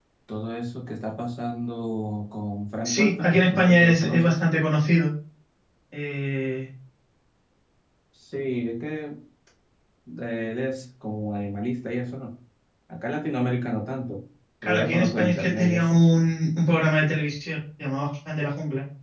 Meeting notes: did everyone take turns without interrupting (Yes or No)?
No